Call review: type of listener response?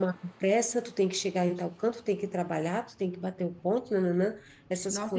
taking over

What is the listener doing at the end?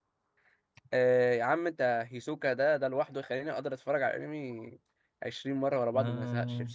taking over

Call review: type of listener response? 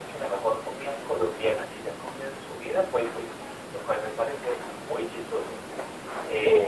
listening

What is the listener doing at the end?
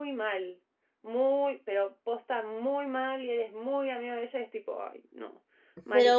taking over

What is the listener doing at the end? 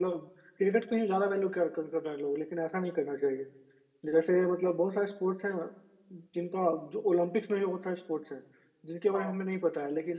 listening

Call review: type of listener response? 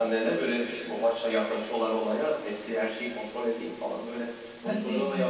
listening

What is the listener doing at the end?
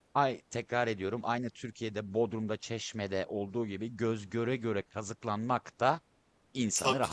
taking over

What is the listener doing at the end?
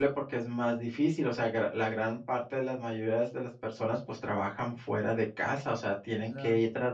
listening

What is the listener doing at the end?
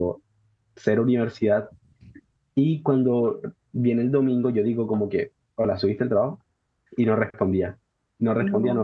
listening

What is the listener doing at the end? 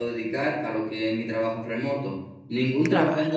listening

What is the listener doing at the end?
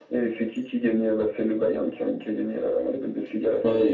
taking over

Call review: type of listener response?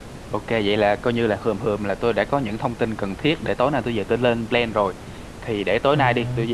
listening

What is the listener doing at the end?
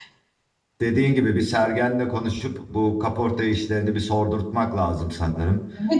taking over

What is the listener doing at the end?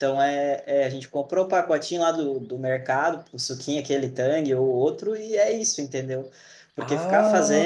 listening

